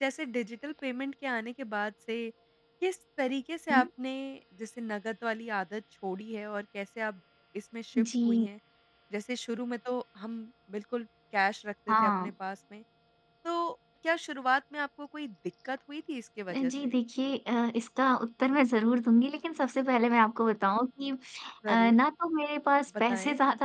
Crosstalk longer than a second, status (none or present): none